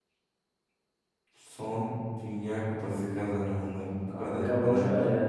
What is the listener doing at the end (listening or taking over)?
taking over